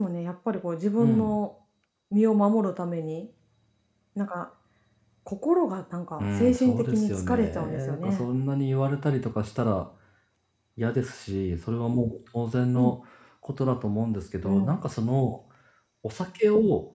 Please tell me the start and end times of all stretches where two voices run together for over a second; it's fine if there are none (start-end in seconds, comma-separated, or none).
6.2-8.2